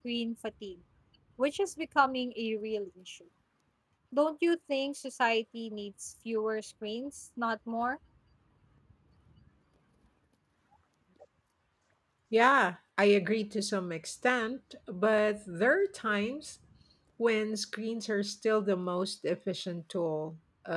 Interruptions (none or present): none